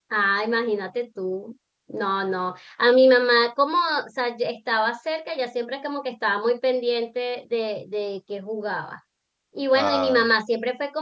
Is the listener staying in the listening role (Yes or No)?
Yes